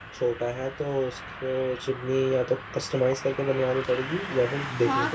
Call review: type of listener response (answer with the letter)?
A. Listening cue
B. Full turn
B